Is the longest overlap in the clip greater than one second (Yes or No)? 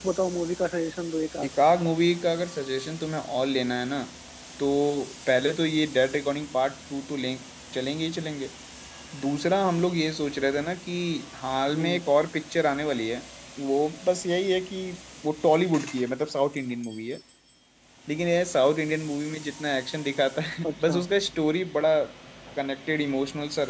No